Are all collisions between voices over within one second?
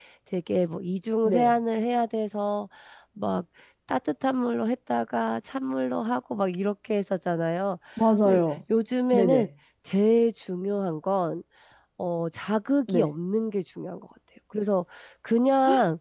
Yes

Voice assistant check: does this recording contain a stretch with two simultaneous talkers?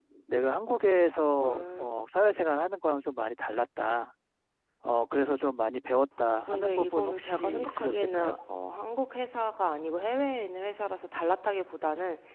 Yes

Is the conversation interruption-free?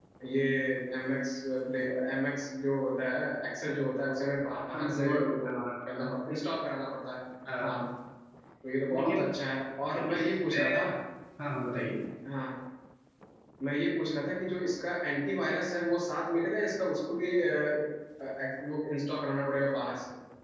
No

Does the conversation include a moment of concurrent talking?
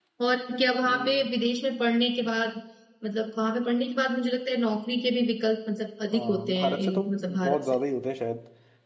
Yes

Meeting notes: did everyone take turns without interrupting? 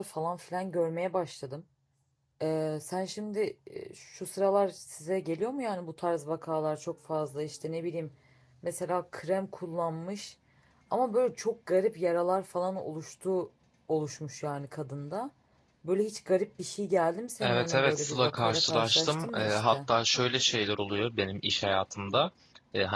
No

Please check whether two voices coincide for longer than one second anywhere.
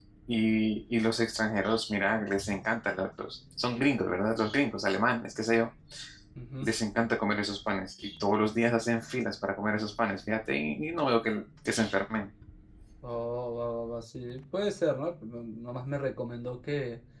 No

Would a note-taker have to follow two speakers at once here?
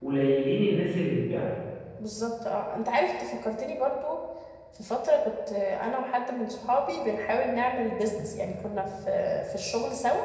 No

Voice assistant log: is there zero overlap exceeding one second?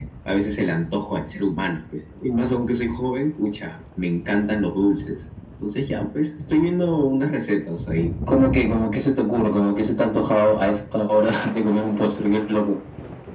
Yes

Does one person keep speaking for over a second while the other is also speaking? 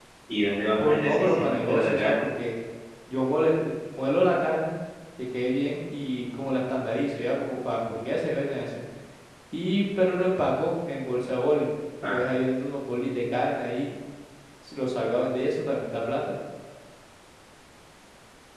Yes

